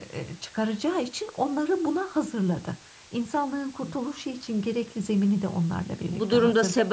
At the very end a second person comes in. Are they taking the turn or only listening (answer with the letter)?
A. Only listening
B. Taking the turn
B